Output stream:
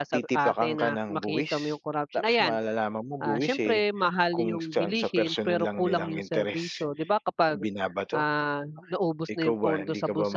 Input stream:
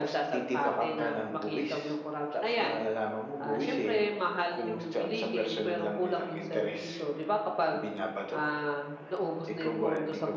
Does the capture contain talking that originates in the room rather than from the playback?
No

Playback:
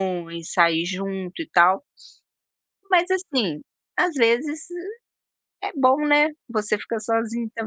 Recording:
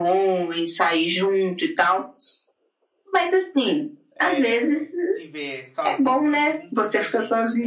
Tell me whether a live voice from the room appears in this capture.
Yes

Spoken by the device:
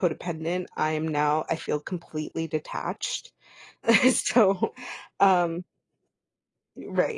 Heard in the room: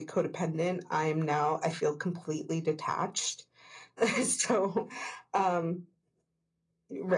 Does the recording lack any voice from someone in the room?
Yes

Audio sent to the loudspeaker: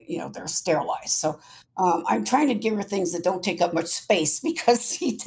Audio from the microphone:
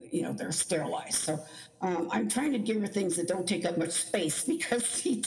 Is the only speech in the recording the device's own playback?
Yes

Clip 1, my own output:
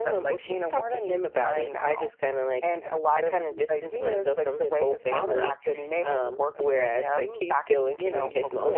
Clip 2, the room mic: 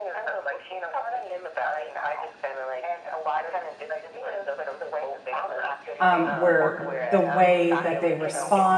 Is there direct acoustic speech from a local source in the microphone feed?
Yes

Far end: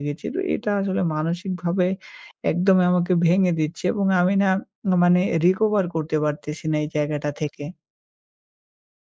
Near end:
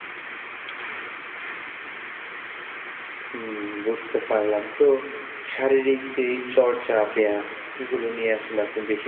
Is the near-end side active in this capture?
Yes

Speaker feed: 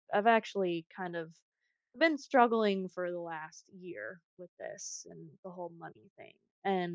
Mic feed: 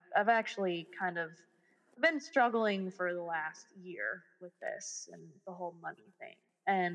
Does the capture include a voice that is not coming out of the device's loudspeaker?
No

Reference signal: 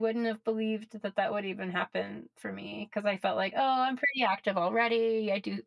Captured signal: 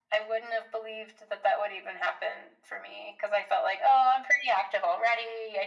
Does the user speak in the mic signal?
No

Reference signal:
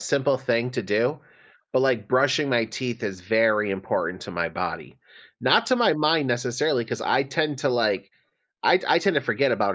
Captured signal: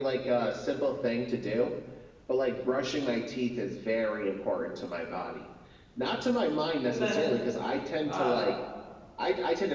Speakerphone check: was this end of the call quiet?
No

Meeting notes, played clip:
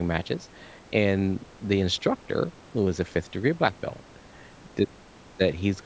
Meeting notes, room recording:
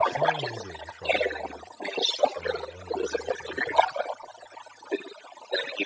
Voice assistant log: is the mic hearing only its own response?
No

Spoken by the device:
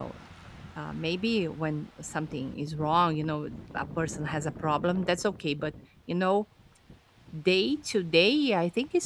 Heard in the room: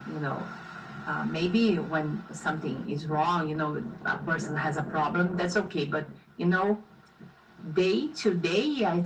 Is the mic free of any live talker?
Yes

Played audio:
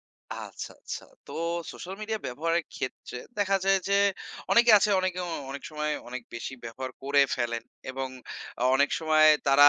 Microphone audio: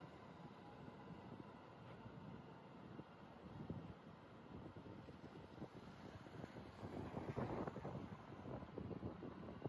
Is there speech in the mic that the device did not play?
No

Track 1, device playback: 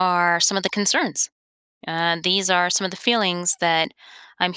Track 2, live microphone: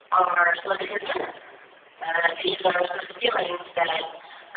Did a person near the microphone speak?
No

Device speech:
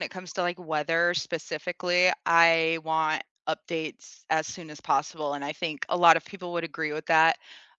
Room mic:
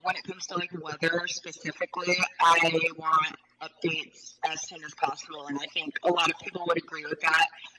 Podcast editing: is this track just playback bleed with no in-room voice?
Yes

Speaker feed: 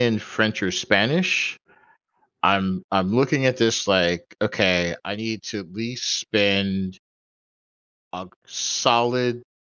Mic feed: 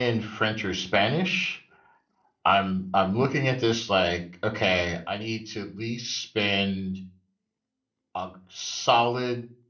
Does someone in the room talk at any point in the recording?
No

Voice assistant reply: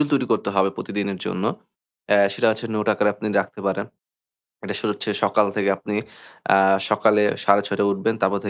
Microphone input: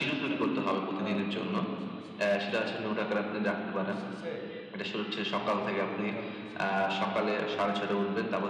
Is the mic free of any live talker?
No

